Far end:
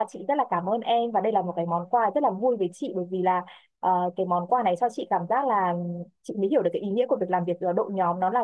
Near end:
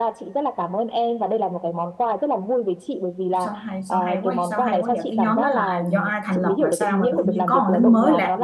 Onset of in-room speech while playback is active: 3.4 s

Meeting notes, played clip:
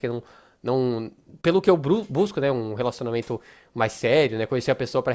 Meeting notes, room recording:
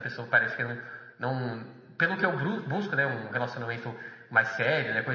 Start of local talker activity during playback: none

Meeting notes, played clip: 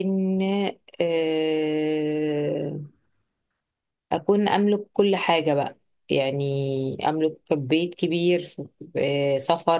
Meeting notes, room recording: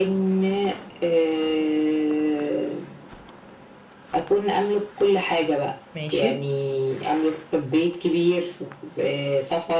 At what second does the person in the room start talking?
5.9 s

